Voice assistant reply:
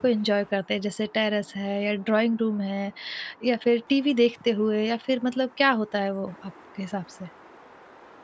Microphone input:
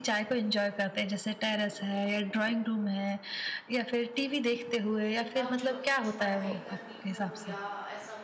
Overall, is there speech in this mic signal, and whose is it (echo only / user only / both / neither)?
both